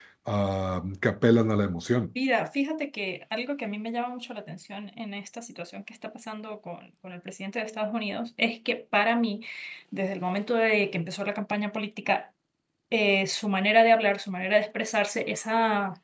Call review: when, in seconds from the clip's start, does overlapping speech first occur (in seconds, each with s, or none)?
none